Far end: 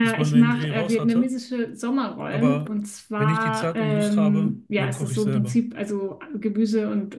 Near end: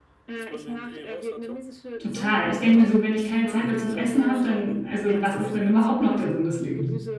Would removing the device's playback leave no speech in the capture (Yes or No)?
No